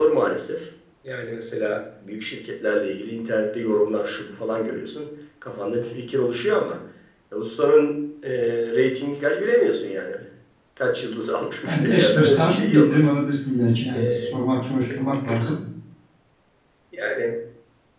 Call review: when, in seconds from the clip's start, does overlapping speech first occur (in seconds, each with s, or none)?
11.7 s